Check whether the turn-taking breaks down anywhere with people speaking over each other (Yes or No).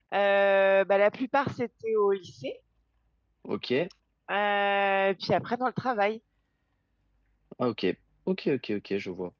No